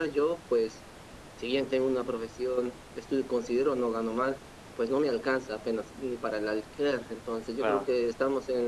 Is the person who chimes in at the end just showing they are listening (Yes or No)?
Yes